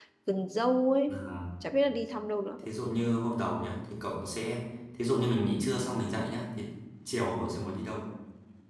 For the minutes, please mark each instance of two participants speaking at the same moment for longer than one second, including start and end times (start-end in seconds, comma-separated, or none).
none